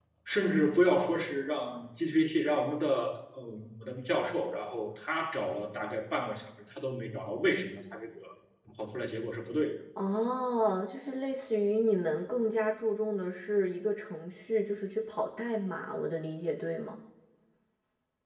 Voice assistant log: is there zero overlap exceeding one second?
Yes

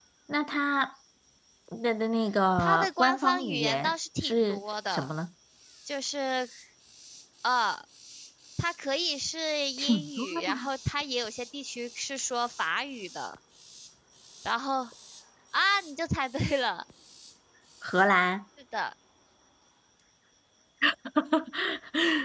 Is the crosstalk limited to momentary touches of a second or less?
No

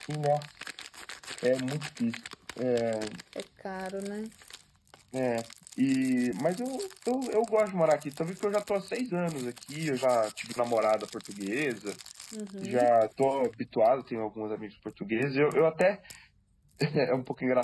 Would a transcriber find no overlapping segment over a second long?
Yes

